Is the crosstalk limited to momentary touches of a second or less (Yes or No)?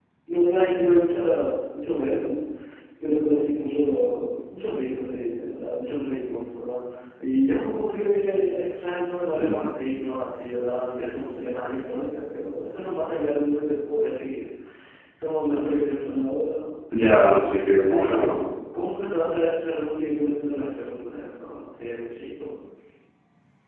Yes